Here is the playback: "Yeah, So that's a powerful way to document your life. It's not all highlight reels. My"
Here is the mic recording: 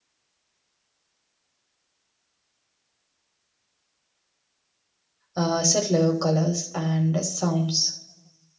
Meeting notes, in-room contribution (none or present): present